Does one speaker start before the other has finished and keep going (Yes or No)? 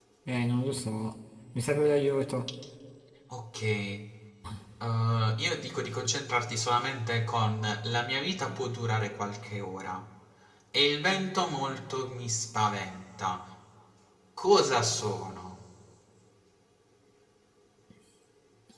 No